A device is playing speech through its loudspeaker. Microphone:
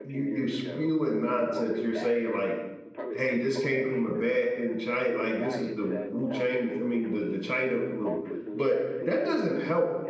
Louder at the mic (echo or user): user